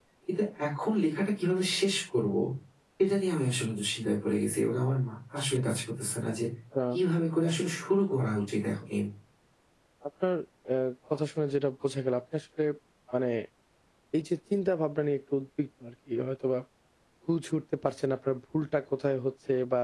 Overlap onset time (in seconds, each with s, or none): none